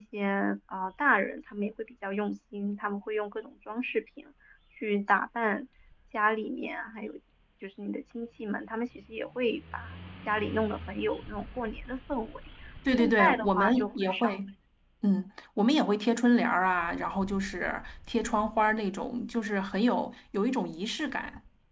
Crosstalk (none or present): present